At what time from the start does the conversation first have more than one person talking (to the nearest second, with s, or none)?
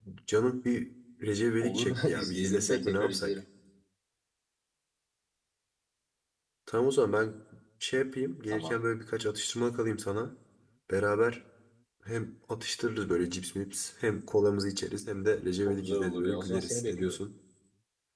2 s